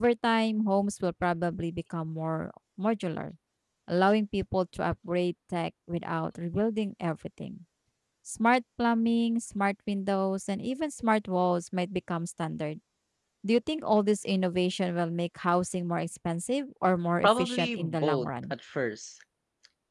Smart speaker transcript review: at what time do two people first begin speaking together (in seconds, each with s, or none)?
17.2 s